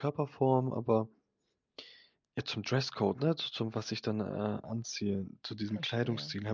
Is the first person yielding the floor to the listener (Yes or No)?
No